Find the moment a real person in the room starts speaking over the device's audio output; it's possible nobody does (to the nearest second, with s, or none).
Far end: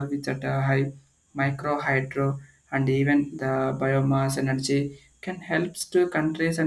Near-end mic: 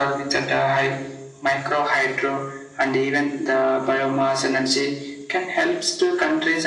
none